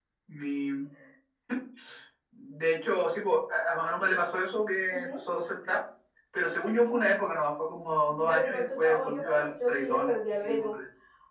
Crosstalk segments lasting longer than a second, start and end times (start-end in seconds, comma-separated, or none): 8.1-10.8